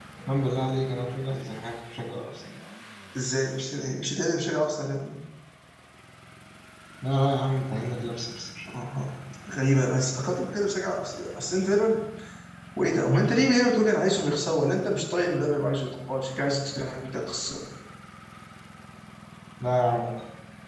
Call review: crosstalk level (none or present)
none